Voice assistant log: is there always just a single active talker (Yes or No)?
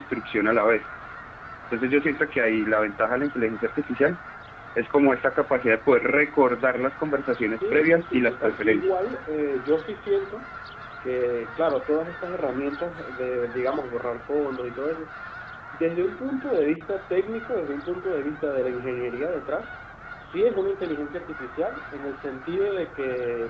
No